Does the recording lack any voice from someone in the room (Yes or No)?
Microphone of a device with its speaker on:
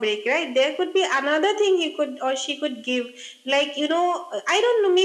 Yes